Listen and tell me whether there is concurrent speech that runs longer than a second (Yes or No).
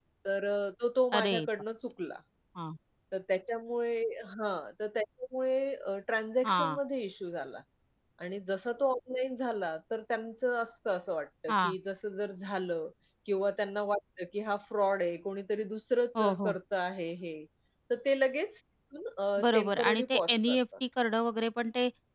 Yes